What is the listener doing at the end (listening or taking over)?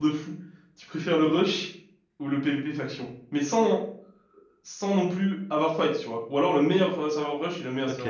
taking over